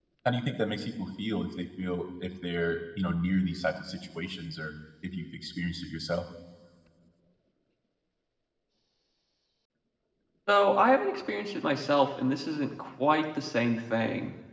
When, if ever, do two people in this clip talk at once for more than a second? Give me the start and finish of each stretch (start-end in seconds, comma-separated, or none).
none